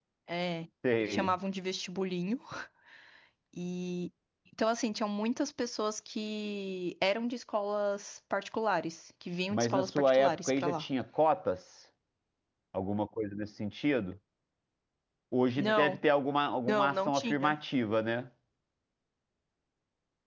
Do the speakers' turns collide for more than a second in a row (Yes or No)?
Yes